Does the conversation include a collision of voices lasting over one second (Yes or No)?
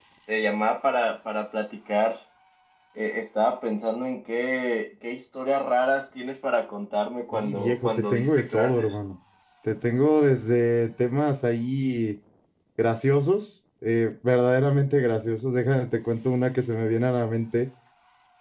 Yes